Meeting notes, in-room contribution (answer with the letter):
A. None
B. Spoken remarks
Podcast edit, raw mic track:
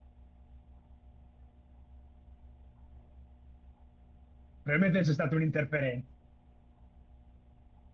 B